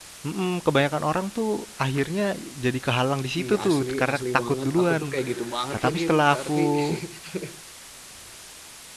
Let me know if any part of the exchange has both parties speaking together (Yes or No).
Yes